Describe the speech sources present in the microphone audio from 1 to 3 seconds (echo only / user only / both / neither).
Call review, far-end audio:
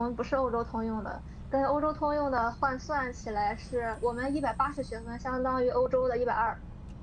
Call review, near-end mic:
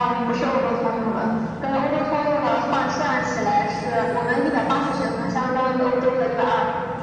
echo only